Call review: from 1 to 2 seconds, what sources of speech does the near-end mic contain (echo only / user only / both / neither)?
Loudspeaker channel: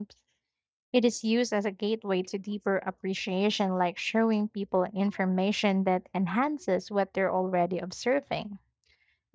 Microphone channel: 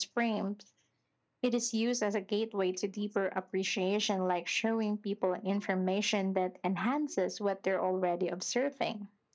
echo only